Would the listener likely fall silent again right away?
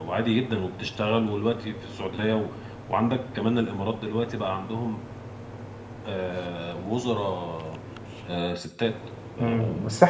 No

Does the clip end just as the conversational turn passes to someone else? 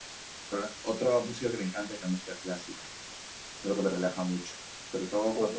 No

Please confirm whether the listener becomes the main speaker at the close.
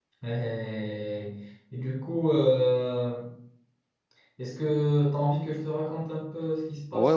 Yes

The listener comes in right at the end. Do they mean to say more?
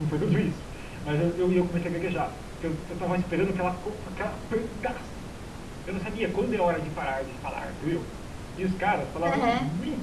No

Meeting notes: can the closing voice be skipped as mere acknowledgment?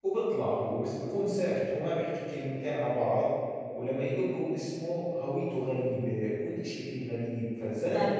No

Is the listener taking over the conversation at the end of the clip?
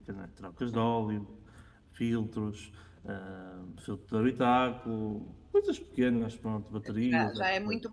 Yes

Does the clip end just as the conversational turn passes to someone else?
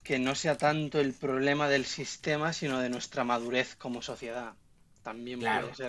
Yes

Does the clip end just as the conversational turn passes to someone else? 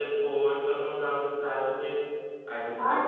Yes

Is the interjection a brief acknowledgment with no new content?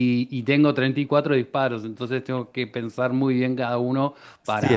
No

